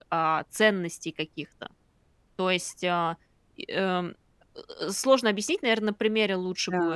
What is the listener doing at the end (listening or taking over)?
taking over